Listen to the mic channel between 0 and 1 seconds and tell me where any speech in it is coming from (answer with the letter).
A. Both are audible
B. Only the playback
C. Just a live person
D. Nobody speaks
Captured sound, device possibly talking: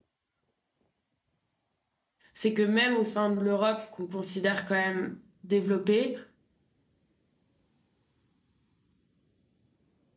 D